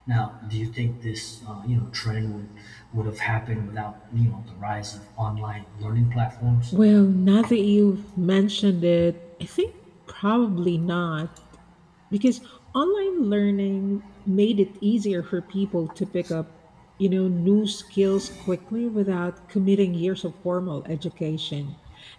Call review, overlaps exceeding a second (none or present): none